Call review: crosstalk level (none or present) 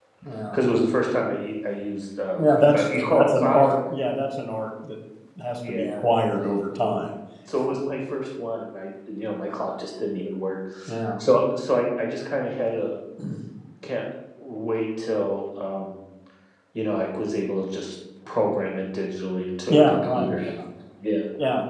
present